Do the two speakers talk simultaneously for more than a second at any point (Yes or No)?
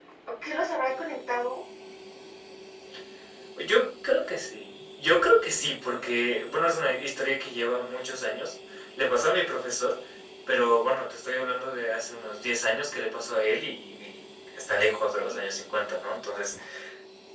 No